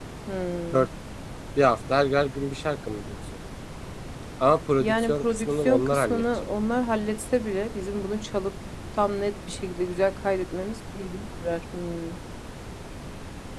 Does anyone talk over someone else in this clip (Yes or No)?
Yes